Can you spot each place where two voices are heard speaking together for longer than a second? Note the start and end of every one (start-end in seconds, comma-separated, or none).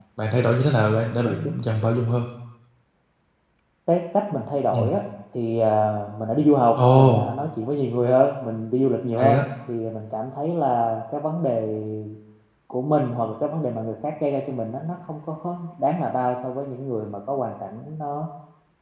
none